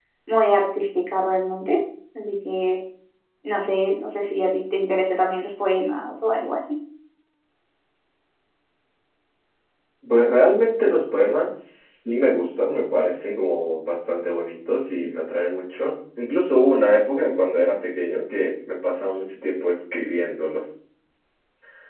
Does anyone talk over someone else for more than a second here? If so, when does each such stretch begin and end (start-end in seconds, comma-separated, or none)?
none